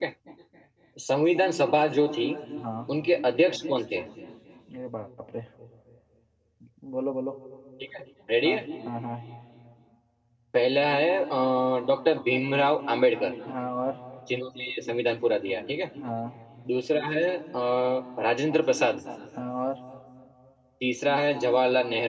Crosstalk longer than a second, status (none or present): none